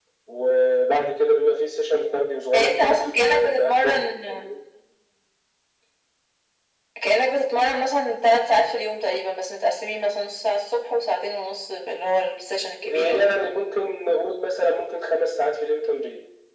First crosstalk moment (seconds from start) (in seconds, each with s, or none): 2.5 s